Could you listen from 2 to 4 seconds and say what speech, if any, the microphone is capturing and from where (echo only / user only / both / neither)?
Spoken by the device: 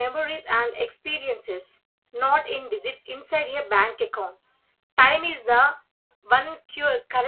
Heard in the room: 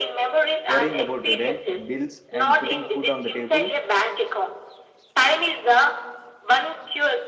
both